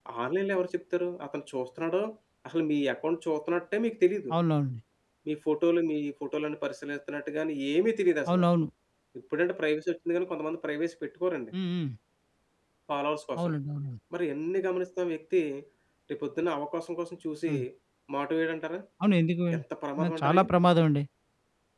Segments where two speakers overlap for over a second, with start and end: none

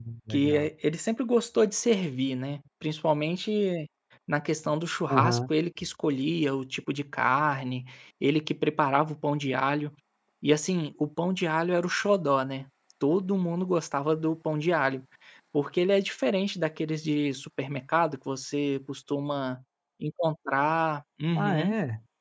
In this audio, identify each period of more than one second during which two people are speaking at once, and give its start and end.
none

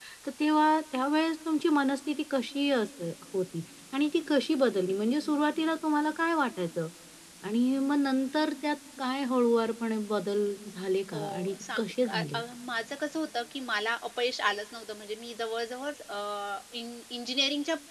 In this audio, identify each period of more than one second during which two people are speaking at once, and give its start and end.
11.1-12.4

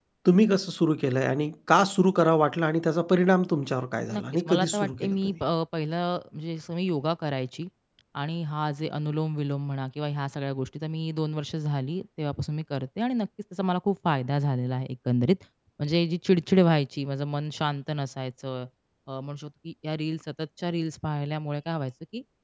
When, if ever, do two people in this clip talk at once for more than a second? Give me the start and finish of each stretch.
4.1-5.3

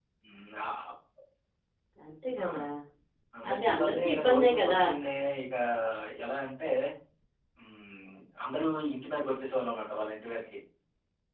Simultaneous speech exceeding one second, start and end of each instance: 3.5-4.8

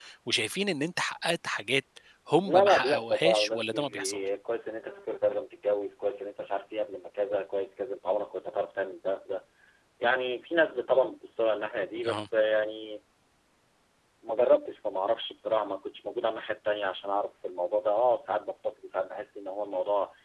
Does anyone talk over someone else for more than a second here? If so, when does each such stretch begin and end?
2.4-4.2

